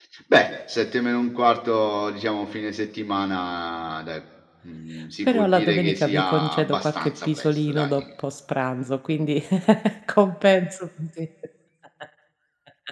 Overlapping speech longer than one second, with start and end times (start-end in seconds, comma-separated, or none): 5.2-7.9